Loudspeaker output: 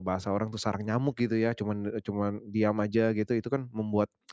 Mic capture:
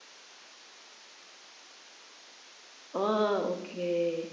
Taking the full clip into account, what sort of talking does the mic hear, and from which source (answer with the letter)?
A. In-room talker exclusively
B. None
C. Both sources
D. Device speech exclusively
A